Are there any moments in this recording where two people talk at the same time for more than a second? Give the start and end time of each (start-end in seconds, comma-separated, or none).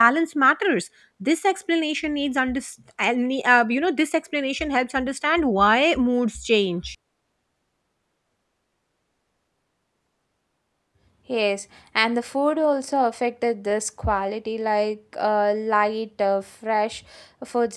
none